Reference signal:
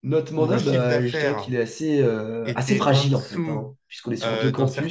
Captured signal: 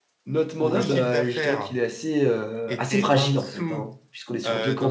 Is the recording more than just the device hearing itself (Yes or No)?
No